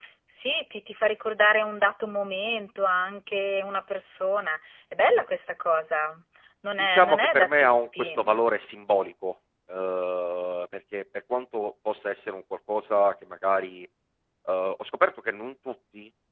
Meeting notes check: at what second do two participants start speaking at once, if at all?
6.8 s

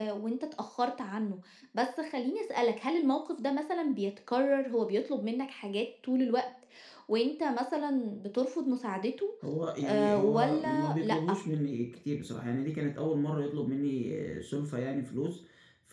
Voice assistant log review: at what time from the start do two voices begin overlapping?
9.8 s

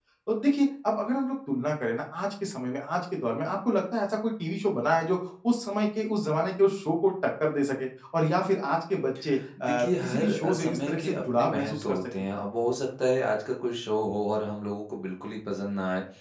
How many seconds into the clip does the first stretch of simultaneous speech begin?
9.6 s

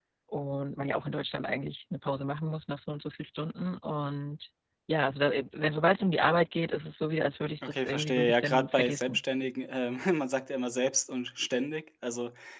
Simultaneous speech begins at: 7.6 s

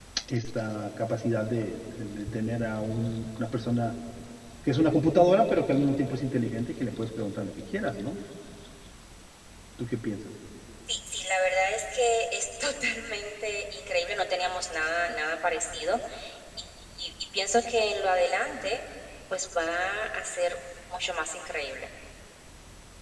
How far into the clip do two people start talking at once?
none

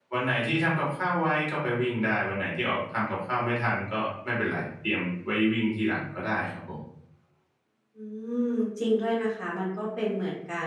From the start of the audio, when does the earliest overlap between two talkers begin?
none

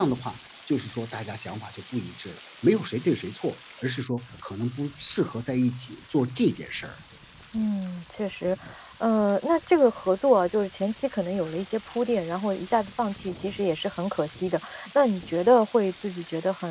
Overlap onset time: none

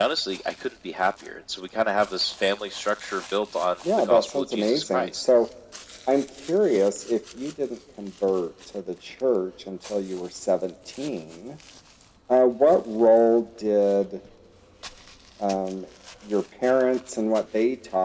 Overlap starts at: 3.8 s

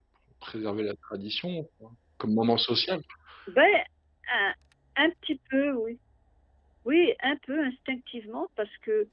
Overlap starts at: none

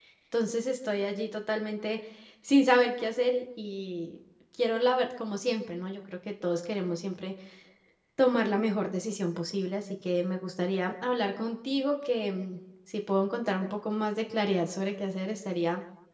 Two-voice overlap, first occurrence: none

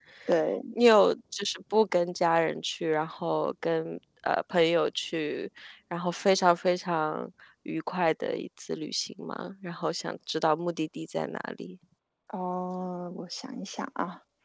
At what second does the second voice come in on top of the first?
none

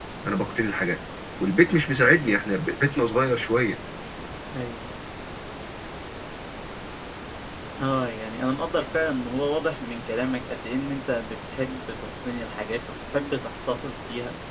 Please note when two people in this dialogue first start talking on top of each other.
none

